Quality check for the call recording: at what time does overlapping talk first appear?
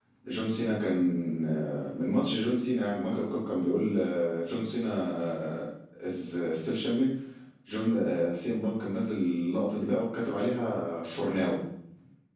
none

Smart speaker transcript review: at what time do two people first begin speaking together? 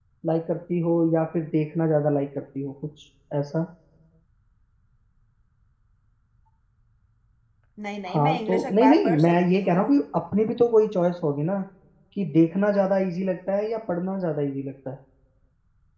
8.1 s

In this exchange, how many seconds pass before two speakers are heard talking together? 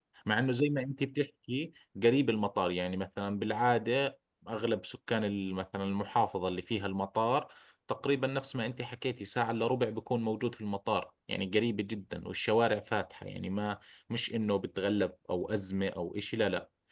none

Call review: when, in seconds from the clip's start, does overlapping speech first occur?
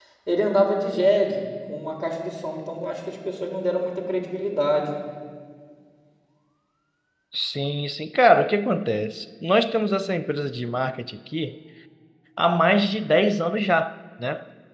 none

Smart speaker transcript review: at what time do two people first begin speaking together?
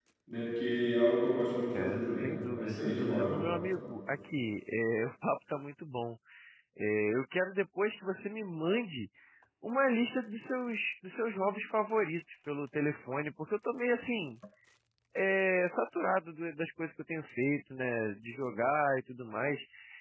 1.7 s

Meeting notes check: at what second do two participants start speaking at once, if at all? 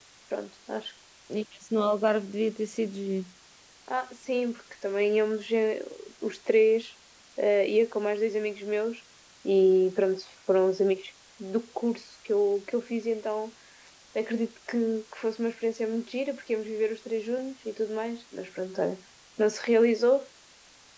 none

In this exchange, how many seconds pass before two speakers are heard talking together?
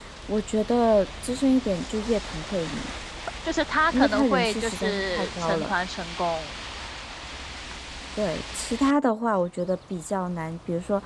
3.9 s

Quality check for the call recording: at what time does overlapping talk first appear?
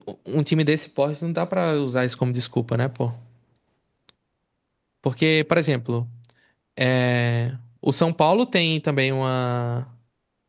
none

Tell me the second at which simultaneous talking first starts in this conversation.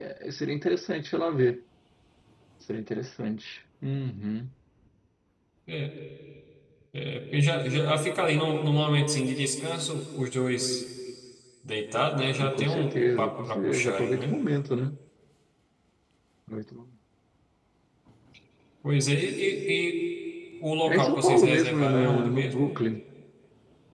12.4 s

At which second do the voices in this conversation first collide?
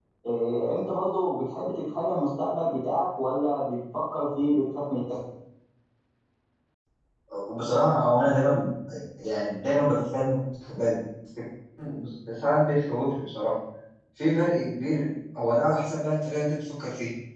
none

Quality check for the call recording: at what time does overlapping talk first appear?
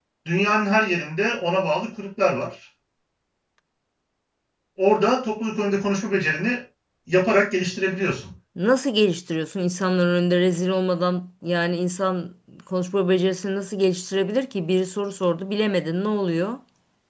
none

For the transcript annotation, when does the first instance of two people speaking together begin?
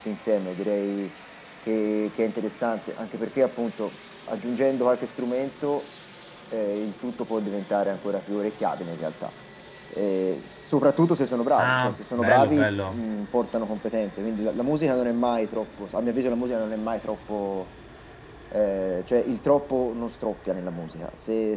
11.6 s

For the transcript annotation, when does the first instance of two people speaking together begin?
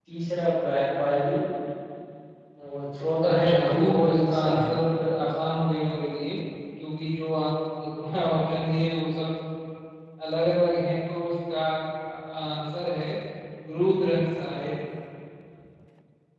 3.3 s

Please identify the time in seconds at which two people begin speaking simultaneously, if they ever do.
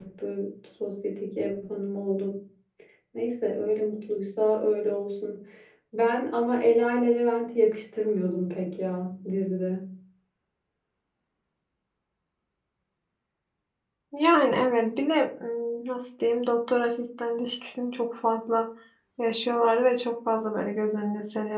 none

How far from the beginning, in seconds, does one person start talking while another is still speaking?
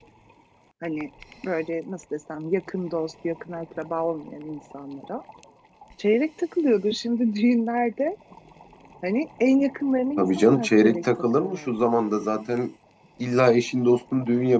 10.2 s

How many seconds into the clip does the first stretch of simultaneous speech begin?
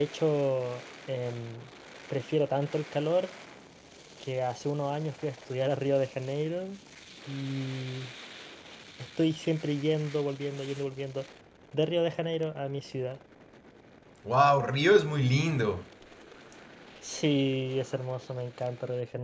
none

